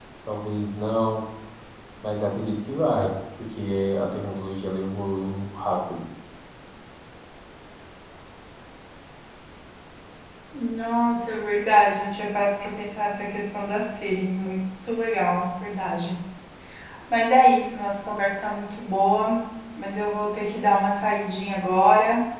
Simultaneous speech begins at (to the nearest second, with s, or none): none